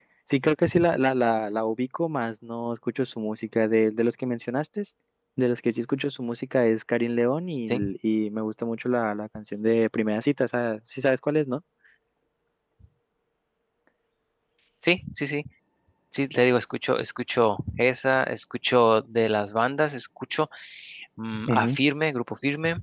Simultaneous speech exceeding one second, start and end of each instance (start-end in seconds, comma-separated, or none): none